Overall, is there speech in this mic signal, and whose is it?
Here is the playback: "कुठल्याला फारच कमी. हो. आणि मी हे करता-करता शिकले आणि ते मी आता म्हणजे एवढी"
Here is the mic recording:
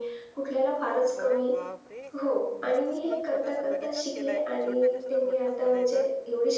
both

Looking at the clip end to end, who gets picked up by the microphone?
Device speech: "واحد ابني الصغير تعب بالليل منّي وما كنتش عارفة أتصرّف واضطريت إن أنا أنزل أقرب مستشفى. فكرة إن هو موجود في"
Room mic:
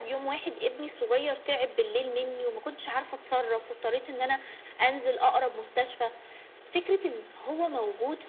echo only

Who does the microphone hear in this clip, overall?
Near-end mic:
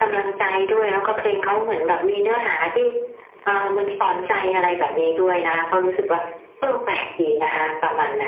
echo only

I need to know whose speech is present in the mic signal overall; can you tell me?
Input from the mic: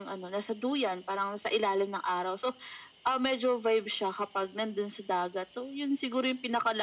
echo only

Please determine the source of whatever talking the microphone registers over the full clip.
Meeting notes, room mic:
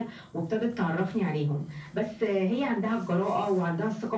echo only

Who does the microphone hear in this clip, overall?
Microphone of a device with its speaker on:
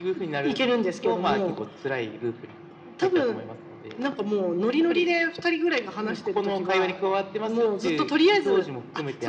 echo only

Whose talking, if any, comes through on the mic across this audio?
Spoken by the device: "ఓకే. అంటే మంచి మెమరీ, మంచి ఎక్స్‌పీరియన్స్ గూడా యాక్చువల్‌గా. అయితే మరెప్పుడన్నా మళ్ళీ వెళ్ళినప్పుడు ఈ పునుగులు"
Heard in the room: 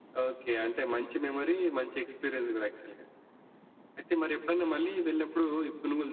echo only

